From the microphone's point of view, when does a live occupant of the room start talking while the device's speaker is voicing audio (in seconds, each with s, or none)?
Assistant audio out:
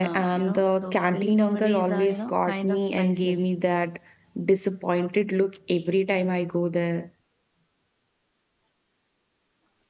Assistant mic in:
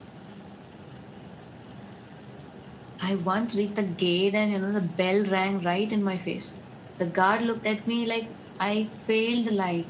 3.0 s